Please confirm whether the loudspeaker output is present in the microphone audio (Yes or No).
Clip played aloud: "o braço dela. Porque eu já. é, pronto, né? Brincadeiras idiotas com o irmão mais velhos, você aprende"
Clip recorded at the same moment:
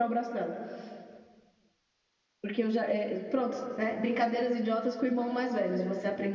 Yes